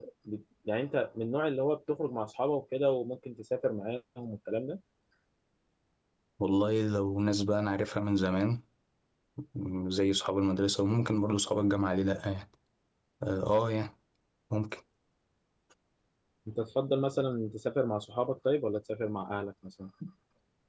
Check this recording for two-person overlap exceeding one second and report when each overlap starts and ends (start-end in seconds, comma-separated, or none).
none